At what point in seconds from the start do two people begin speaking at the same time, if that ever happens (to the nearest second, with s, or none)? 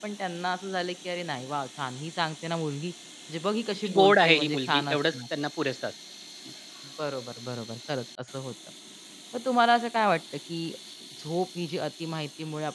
4 s